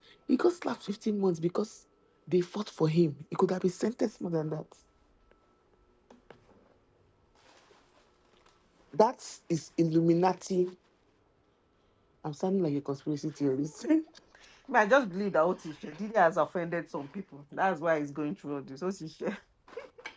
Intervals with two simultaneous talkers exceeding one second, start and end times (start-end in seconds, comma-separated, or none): none